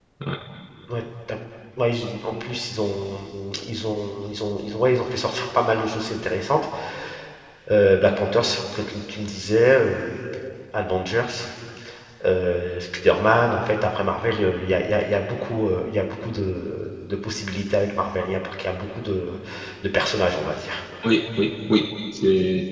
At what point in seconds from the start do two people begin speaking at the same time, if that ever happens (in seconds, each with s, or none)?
none